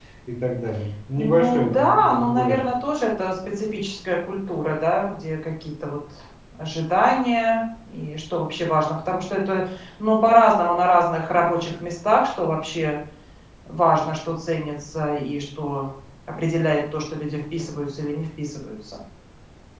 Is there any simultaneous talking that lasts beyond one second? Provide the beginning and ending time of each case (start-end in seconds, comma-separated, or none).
1.2-2.6